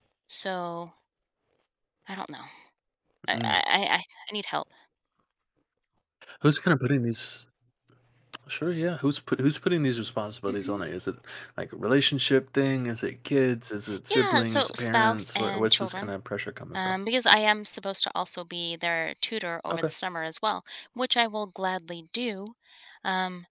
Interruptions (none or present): present